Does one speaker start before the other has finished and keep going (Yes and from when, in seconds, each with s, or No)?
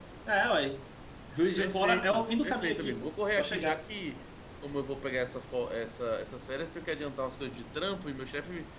Yes, from 1.6 s